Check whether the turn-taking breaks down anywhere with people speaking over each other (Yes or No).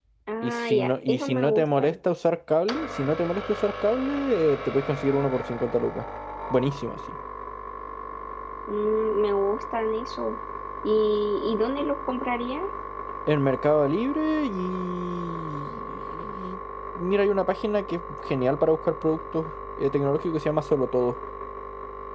Yes